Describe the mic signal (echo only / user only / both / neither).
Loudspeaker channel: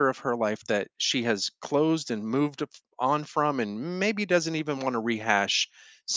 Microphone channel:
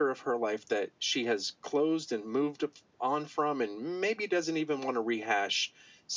echo only